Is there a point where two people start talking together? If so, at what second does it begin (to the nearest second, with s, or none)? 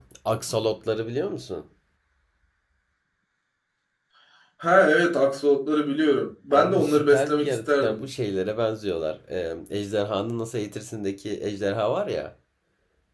7 s